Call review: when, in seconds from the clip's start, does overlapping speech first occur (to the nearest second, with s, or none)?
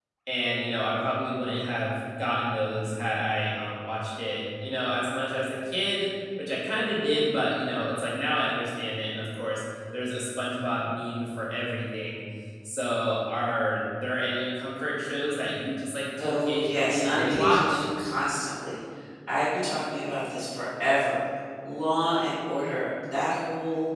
16 s